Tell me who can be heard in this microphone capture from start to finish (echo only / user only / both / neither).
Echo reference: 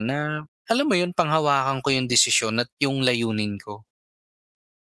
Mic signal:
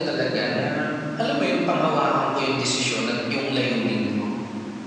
echo only